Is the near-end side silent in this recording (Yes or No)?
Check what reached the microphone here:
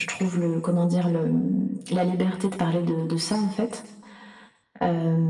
Yes